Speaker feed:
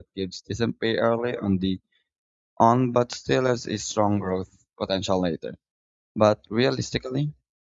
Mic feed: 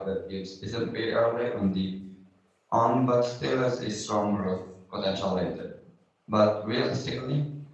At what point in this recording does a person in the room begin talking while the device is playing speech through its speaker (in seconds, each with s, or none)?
none